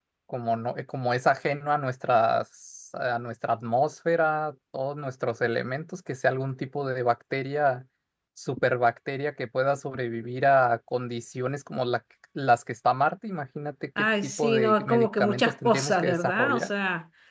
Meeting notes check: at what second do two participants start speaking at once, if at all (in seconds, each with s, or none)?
14.0 s